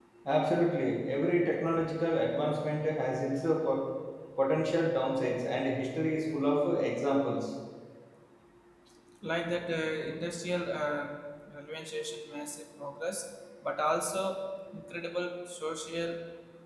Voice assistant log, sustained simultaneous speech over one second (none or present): none